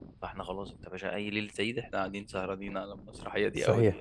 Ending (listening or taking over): taking over